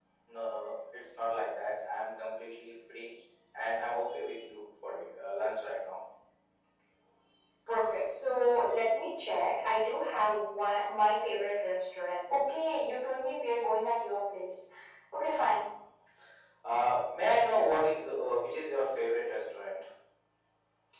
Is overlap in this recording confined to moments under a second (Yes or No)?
Yes